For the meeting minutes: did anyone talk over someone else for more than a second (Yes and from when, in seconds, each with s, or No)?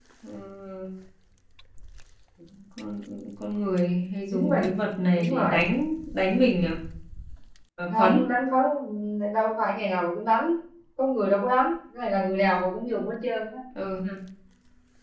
No